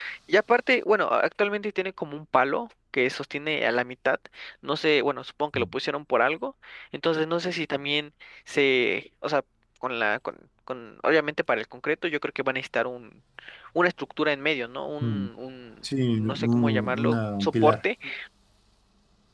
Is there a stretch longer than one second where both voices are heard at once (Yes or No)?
Yes